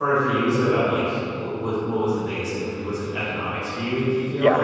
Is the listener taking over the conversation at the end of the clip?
Yes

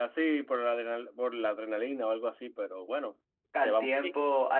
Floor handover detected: Yes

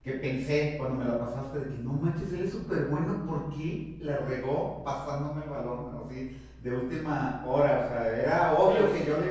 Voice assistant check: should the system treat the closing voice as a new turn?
No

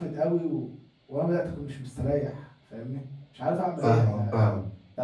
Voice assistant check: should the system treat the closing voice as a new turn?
Yes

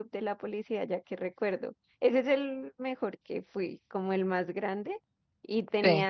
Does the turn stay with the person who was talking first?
Yes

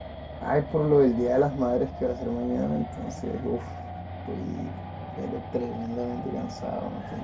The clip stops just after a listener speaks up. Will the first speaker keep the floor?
No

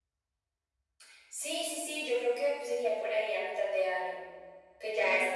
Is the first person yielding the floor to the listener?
Yes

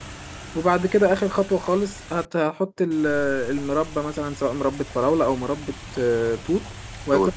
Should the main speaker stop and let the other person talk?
No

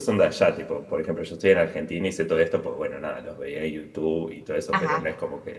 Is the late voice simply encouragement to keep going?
Yes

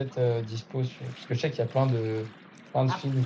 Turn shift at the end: No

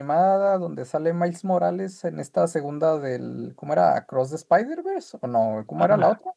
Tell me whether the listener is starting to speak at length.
Yes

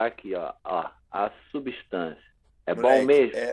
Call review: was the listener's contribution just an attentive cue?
No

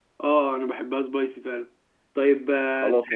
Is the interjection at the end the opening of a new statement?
Yes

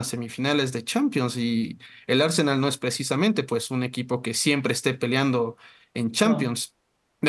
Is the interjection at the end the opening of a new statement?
No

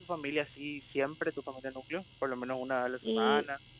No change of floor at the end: No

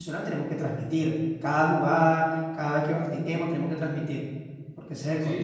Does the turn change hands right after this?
Yes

